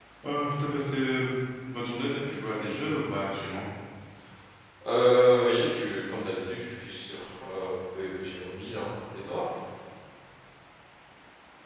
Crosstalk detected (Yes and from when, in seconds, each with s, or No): No